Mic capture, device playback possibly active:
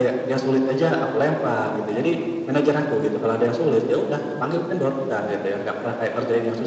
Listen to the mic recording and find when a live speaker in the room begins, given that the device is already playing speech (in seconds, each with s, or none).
none